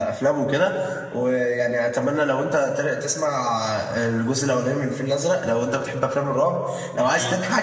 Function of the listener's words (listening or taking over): listening